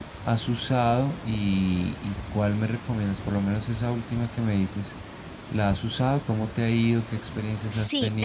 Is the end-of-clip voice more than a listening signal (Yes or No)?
Yes